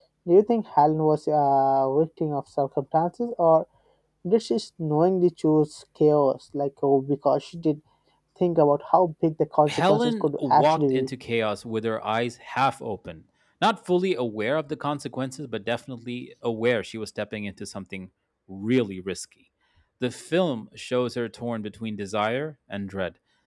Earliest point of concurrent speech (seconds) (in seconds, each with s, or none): 9.7 s